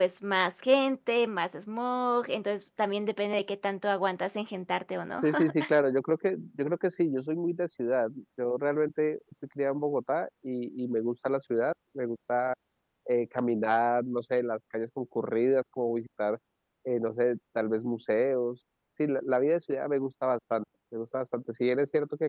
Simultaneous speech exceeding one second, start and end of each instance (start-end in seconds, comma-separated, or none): none